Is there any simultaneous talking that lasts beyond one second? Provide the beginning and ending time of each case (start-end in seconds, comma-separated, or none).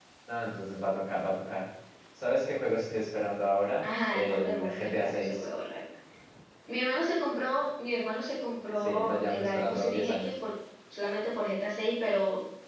3.8-5.4, 8.7-10.4